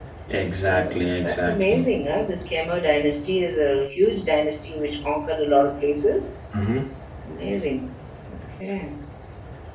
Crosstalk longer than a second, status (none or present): present